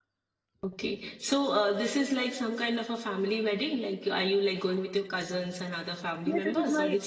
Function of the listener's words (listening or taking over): taking over